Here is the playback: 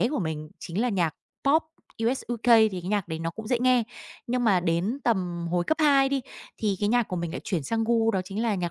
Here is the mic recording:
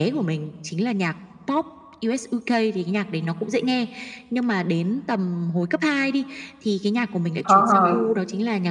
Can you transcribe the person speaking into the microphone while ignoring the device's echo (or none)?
ờ.